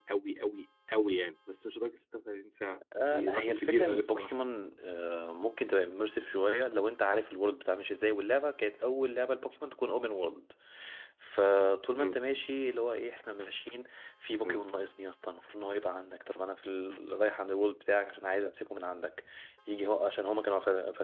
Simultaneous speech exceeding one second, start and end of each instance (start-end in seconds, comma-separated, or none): 3.0-4.3